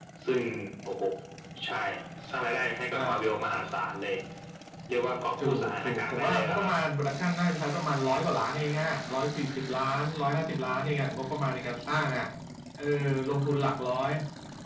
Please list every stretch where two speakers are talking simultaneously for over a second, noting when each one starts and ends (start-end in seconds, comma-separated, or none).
5.4-6.7